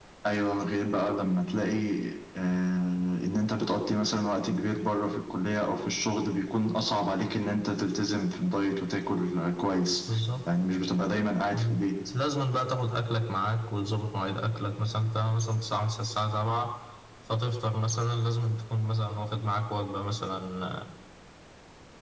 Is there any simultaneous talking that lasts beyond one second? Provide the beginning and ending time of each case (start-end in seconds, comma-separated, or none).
none